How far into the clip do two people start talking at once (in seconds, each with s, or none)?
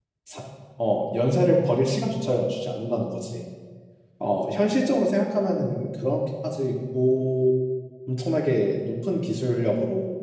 none